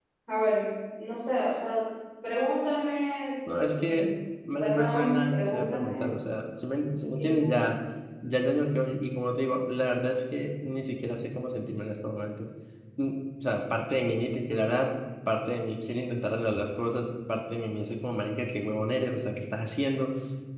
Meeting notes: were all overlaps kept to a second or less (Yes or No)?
No